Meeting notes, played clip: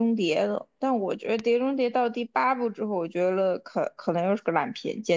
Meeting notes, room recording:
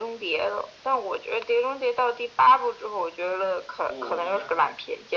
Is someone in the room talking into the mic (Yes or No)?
Yes